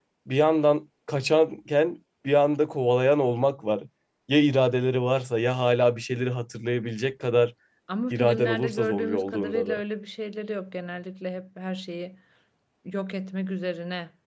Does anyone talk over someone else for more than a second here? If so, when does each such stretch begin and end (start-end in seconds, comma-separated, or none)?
8.1-9.8